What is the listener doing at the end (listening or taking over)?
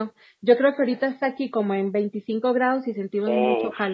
taking over